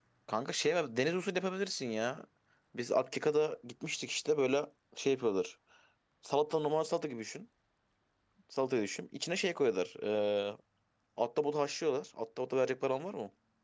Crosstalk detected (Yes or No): No